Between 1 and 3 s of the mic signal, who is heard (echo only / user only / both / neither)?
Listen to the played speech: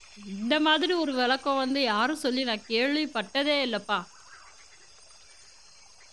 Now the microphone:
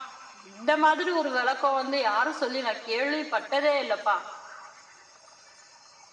echo only